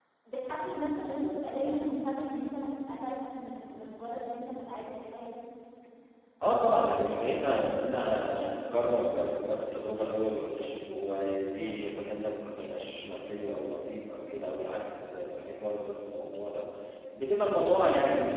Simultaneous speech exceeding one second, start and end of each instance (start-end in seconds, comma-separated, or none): none